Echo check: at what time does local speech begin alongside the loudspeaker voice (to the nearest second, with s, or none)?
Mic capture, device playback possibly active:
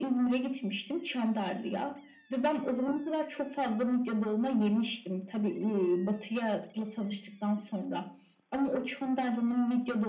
none